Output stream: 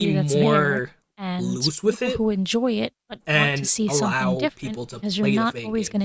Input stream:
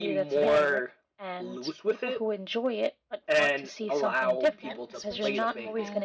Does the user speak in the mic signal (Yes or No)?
Yes